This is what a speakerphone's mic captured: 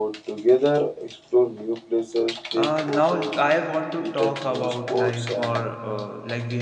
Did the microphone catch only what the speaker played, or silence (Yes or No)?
No